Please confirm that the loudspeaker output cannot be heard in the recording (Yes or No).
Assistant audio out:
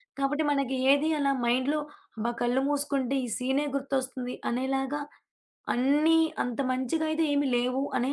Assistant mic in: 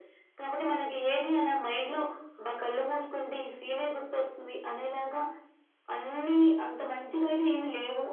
No